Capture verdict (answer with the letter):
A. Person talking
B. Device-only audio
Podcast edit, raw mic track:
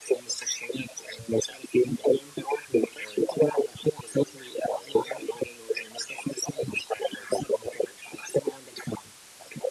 B